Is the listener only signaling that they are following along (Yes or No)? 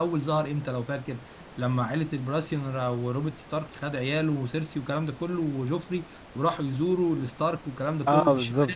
Yes